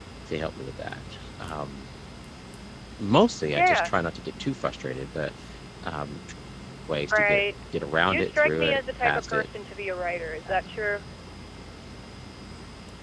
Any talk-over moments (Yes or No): Yes